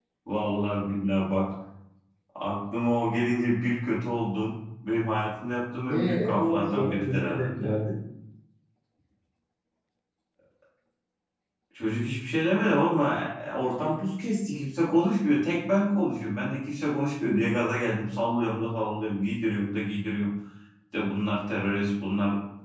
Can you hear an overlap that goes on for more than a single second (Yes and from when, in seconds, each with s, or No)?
Yes, from 5.9 s